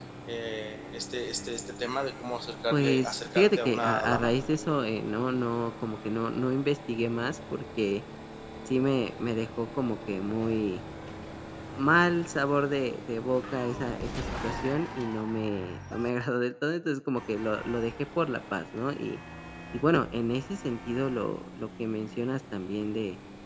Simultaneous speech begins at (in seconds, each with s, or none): 2.7 s